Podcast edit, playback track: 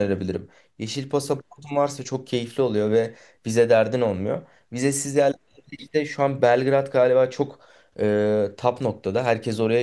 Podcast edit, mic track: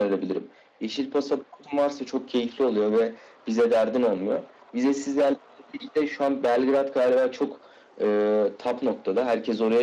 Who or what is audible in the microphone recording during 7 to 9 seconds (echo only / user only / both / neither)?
echo only